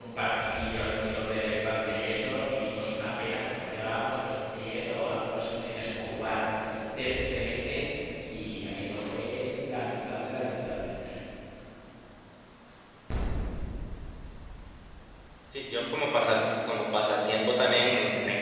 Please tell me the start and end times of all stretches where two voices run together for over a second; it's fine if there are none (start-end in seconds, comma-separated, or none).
none